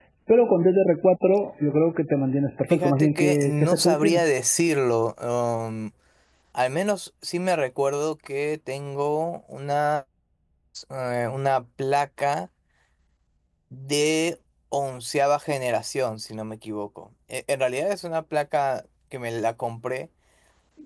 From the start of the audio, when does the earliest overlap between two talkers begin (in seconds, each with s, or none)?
2.7 s